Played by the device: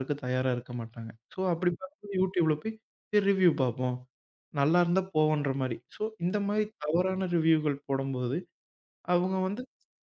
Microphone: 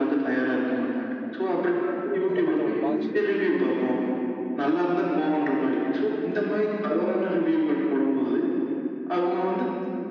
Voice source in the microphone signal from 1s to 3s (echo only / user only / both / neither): both